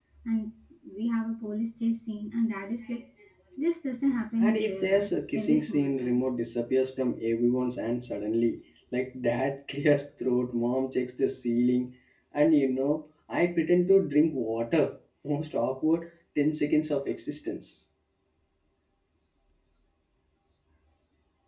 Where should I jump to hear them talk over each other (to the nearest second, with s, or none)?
4 s